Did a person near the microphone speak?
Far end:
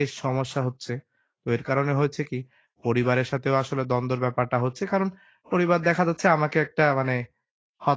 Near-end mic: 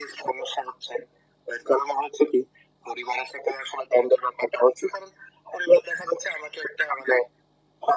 No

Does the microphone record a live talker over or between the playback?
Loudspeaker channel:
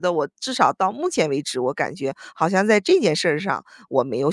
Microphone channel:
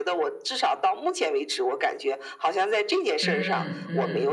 Yes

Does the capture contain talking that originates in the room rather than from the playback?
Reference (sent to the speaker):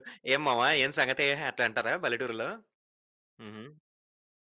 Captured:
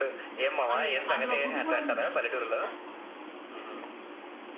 Yes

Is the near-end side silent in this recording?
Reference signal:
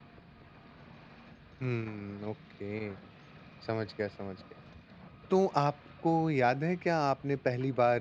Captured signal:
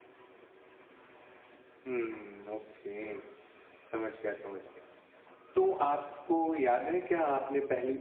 Yes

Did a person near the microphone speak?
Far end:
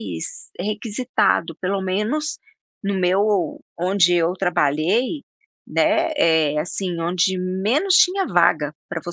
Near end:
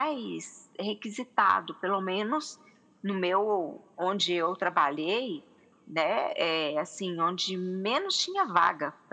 No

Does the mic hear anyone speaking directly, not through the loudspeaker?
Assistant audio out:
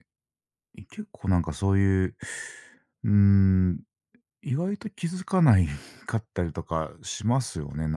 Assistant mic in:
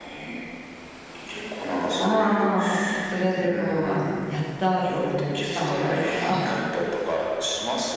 Yes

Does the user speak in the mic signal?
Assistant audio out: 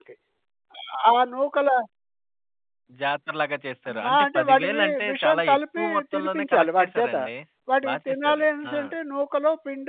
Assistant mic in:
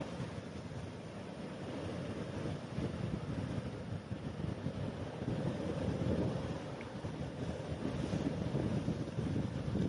No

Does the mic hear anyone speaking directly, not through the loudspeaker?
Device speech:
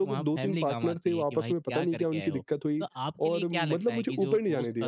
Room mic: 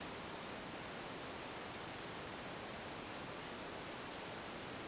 No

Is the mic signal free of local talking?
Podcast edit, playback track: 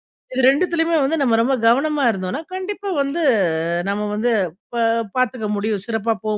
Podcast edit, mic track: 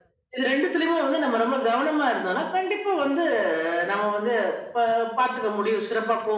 Yes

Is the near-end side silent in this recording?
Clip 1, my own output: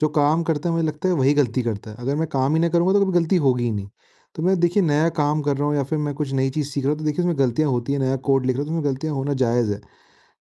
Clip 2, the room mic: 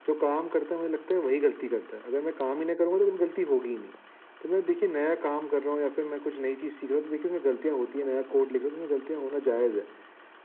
Yes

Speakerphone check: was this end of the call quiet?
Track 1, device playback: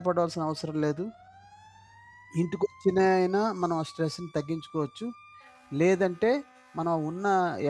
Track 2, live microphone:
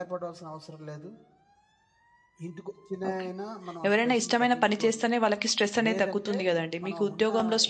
No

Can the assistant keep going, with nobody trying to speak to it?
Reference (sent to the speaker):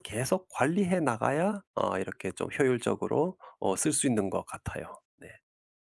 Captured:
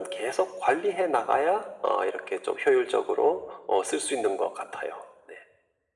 Yes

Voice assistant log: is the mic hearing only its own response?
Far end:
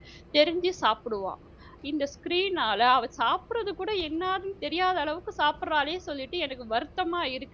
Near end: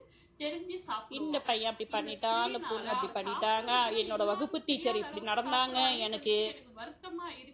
No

